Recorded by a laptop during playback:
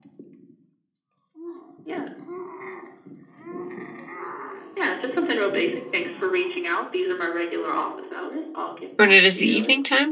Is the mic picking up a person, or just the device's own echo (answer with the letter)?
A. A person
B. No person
A